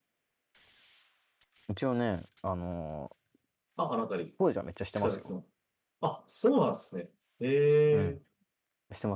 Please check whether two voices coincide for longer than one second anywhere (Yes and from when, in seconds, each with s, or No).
No